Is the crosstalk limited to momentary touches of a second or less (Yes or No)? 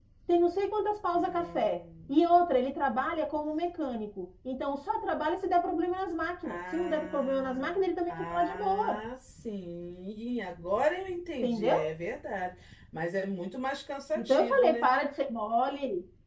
No